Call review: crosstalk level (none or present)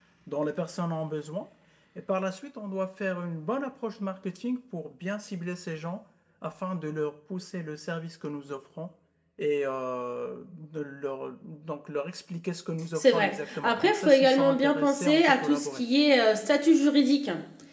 present